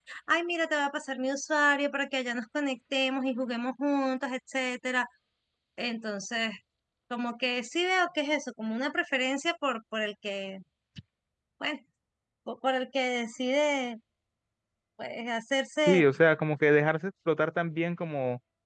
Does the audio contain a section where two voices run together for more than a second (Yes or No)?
No